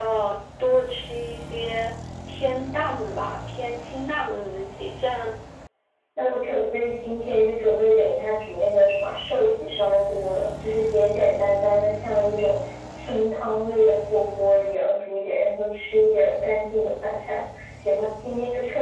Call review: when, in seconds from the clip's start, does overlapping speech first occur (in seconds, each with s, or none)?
none